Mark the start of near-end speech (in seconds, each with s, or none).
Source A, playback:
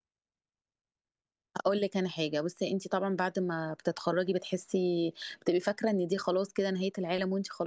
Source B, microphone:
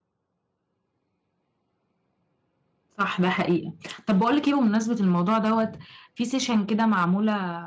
3.0 s